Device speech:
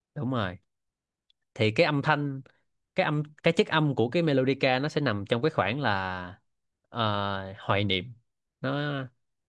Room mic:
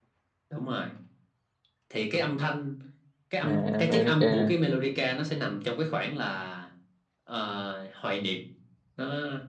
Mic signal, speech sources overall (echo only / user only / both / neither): both